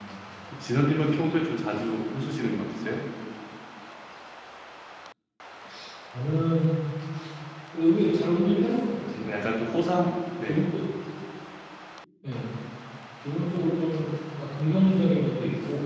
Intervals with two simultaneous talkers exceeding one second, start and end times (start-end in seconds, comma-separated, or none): none